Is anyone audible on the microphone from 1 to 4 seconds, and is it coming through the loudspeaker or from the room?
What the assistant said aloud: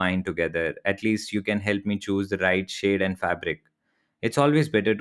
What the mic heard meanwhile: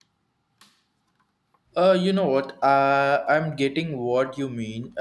user only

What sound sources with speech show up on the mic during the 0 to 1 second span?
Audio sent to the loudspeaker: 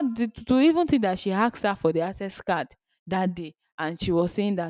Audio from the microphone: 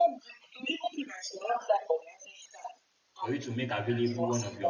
echo only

